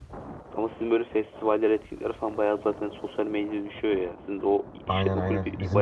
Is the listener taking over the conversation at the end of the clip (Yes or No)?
Yes